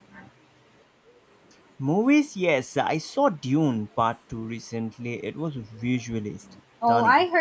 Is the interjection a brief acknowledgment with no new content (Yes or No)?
No